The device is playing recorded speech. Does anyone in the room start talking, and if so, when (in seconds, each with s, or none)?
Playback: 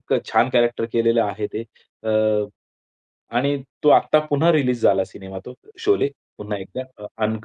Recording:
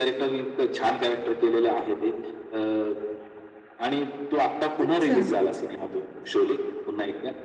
4.8 s